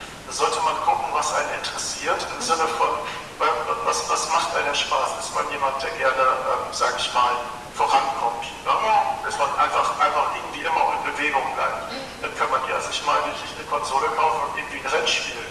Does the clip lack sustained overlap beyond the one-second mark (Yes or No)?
Yes